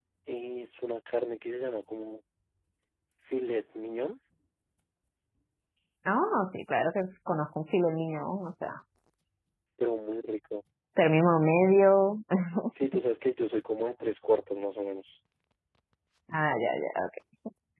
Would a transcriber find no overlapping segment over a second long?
Yes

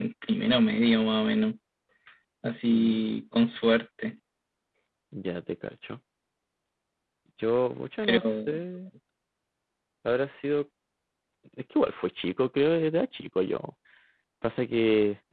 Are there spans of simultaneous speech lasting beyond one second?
No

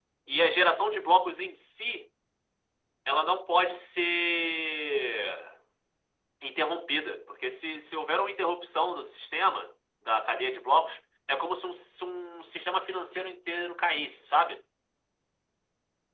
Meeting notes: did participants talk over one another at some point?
No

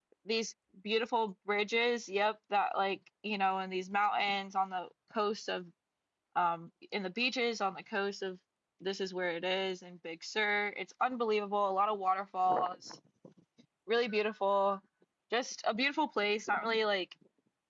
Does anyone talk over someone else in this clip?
No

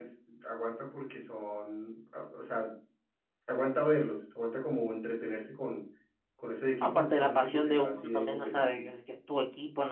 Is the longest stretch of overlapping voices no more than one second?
No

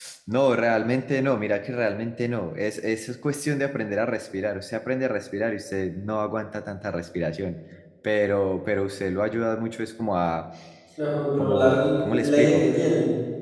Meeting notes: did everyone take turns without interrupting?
No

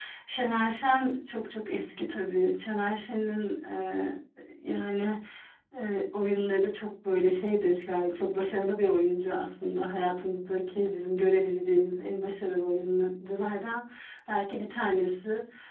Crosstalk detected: No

